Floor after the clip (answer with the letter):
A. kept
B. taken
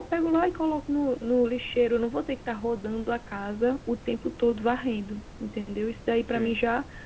A